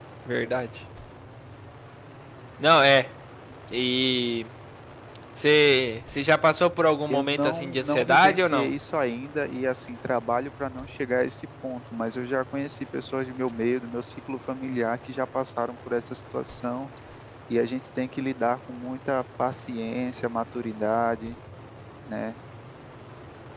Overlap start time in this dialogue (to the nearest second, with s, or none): 7 s